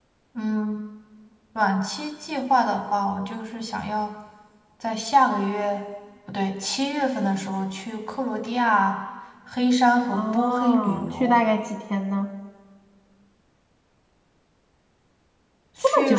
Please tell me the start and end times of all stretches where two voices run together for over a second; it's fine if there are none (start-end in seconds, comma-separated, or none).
10.1-11.4